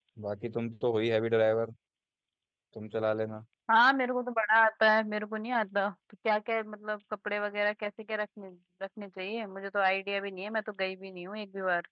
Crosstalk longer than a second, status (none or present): none